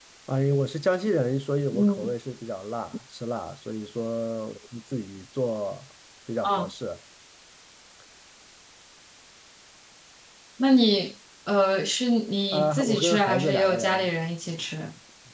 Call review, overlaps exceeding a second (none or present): present